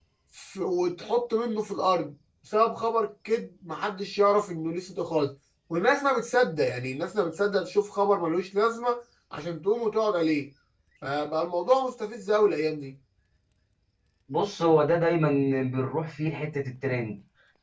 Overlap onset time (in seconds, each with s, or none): none